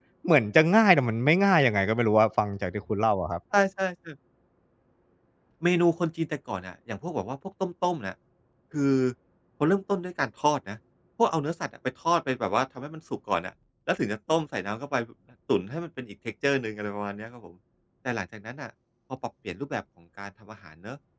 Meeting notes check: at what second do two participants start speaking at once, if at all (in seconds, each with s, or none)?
none